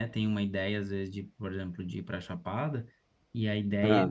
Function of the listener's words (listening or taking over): listening